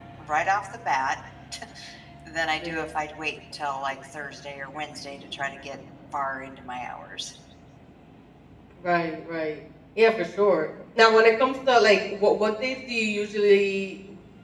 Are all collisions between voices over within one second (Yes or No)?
Yes